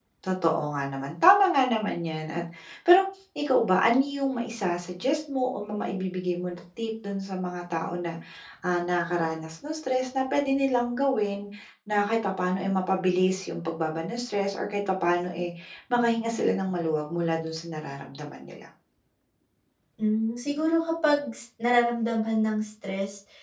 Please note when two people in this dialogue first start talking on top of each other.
none

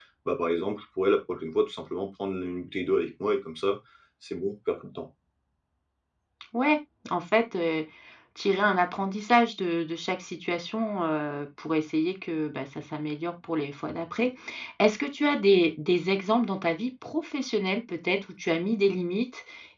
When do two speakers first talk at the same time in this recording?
none

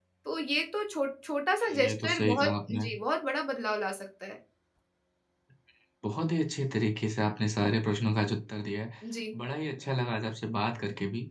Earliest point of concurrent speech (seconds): 2 s

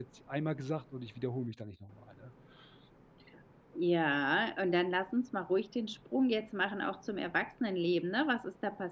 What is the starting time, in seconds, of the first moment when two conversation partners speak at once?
none

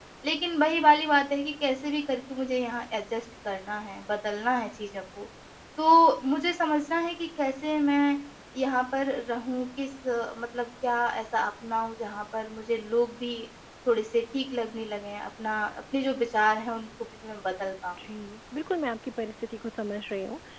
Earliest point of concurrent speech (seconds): none

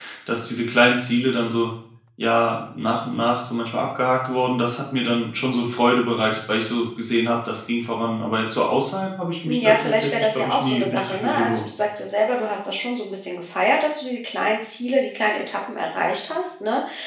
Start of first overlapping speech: 9 s

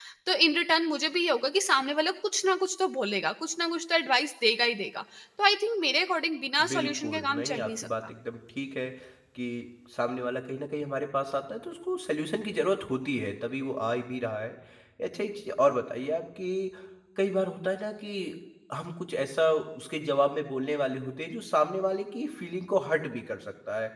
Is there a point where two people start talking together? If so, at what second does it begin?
7 s

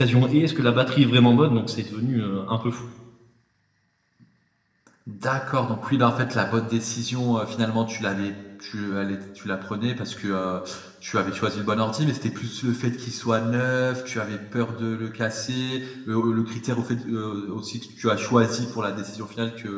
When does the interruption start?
none

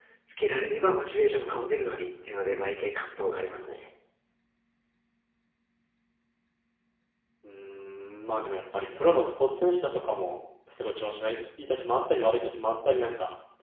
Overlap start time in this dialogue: none

